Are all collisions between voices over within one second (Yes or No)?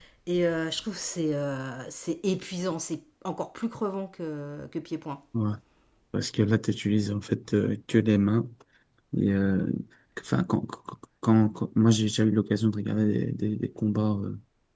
Yes